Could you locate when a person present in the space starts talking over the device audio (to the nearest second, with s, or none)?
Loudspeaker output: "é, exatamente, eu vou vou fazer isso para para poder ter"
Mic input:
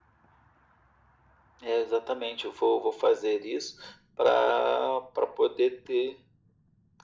none